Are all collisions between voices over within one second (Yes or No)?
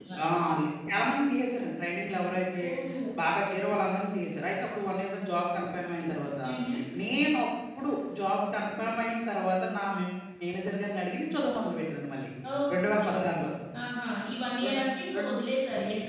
Yes